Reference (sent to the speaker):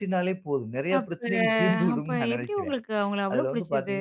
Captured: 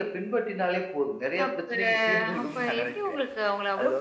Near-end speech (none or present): none